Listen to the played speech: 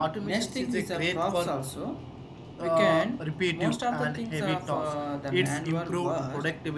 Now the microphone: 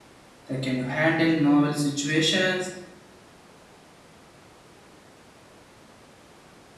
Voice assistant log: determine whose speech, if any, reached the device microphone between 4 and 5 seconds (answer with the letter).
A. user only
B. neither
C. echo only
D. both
B